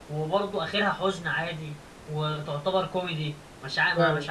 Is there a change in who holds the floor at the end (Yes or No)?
Yes